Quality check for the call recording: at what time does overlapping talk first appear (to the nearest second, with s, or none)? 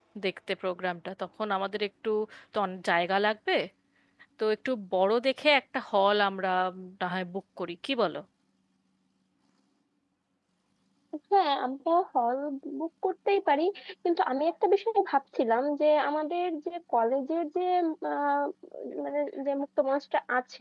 none